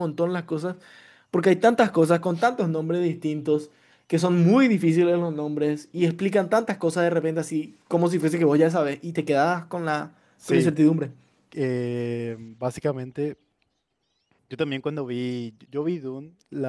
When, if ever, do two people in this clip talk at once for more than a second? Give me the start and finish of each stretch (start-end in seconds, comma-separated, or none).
none